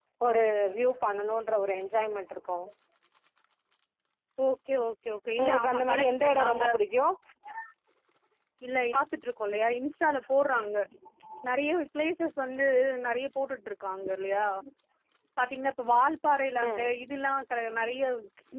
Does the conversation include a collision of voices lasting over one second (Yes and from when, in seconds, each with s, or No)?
Yes, from 5.4 s